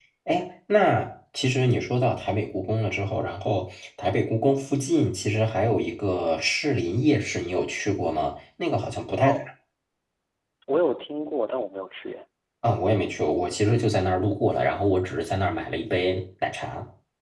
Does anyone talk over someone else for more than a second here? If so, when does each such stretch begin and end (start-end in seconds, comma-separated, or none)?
none